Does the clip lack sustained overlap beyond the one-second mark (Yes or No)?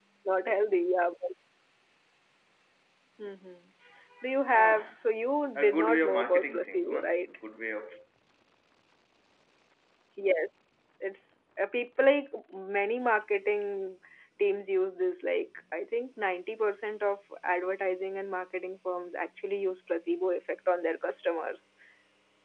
No